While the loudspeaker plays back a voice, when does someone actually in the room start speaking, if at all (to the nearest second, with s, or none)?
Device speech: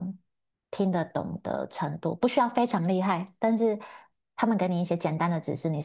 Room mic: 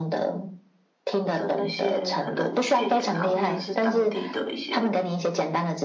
1 s